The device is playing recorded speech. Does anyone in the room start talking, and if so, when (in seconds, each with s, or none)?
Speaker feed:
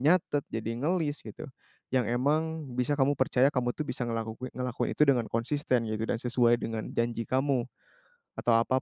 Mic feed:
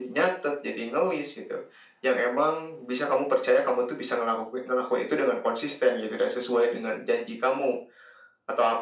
none